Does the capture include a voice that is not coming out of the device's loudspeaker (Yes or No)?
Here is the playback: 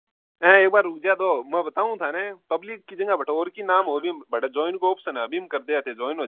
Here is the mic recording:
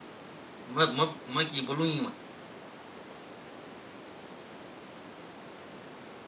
Yes